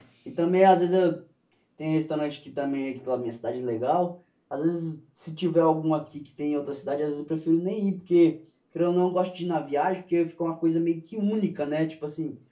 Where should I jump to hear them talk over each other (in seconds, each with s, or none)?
none